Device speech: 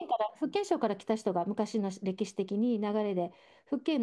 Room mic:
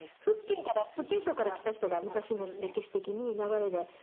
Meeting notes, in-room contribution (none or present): present